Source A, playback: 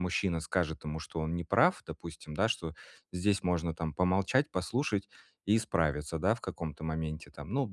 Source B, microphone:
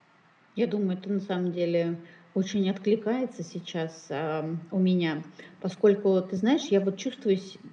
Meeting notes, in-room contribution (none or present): present